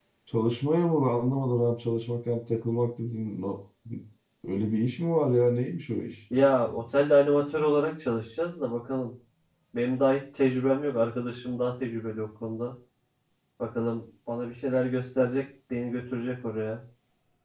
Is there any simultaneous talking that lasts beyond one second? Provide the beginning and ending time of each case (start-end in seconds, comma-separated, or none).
none